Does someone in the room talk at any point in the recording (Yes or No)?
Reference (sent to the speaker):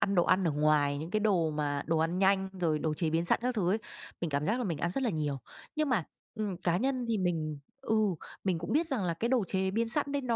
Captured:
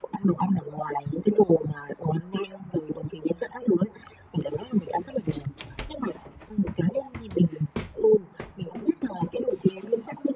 No